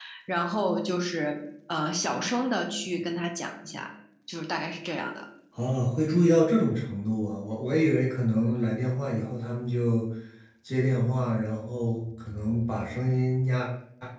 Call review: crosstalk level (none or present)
none